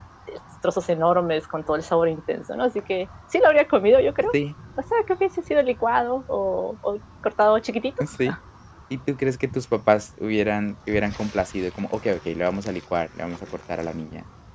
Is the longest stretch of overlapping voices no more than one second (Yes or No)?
Yes